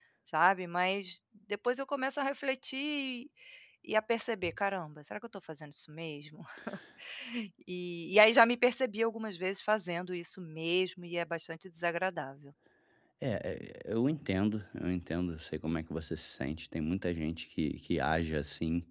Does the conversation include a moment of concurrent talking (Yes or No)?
No